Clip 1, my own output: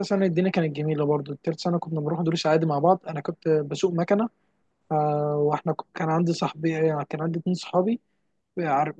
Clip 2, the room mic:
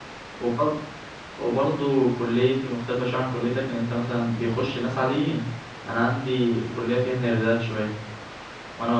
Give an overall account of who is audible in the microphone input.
user only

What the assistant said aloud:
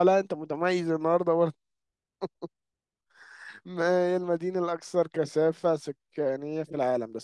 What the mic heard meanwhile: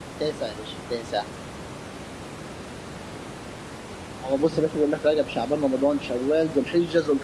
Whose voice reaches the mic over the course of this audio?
user only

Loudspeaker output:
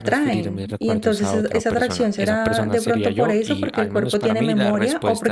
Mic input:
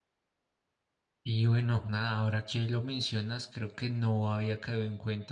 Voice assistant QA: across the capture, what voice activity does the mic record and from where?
user only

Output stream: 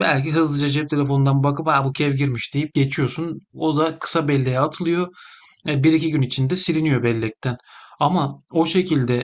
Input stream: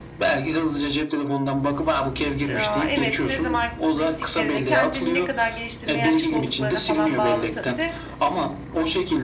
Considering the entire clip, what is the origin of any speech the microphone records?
both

